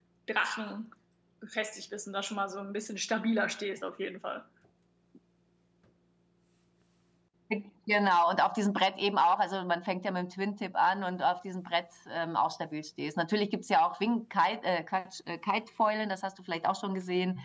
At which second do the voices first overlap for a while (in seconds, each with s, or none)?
none